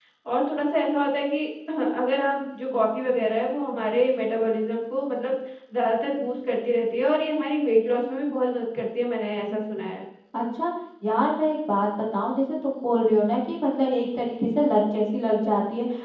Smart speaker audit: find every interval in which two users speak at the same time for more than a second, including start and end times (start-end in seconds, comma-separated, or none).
none